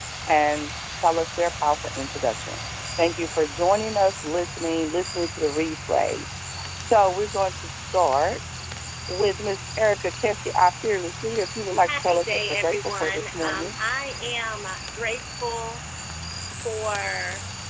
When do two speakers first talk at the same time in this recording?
11.9 s

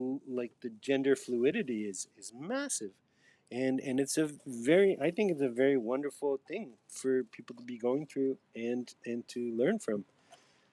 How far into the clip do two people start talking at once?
none

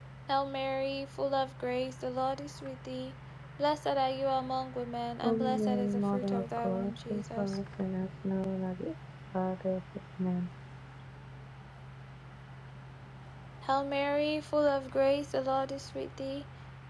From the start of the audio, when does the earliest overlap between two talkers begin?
5.2 s

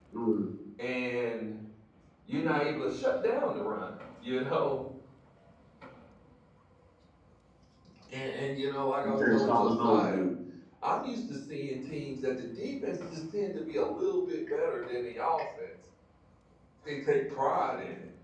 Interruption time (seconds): 9.0 s

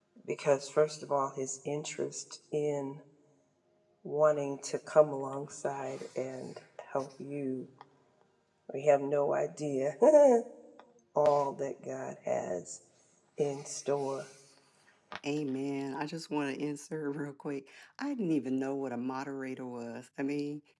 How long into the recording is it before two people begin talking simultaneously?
none

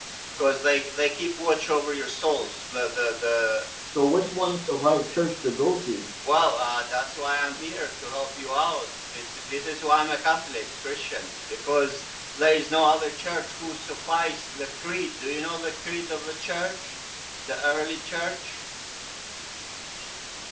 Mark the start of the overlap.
none

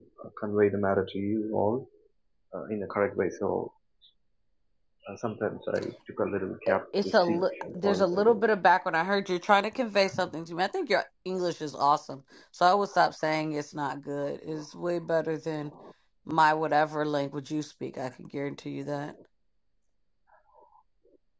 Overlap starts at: 6.7 s

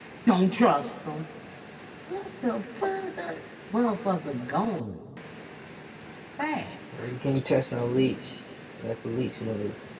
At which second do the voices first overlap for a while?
none

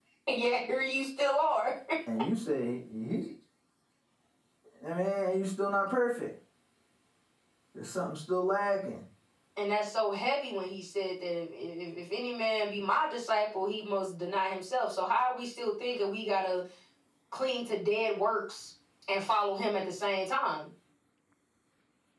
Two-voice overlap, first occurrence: none

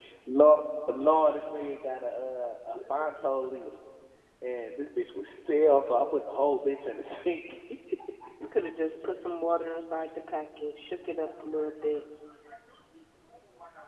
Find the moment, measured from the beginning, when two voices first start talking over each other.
none

